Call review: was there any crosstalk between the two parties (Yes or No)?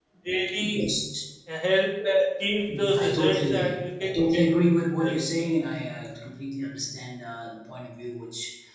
Yes